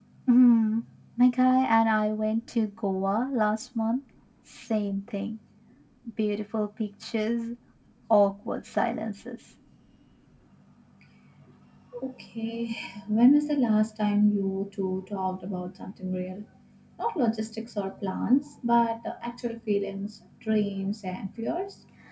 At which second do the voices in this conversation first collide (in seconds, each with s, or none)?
none